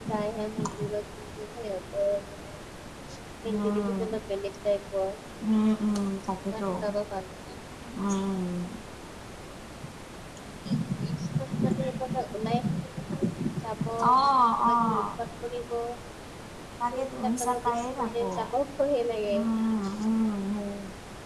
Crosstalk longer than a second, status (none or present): present